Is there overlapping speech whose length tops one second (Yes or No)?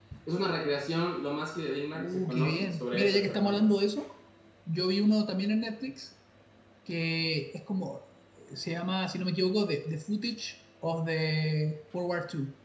Yes